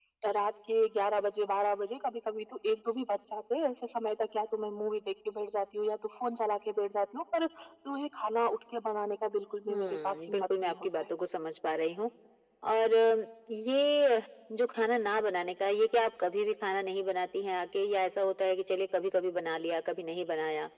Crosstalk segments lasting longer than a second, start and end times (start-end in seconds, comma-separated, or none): 9.7-11.1